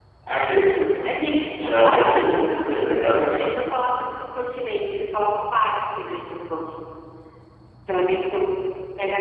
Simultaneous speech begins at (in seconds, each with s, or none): 1.8 s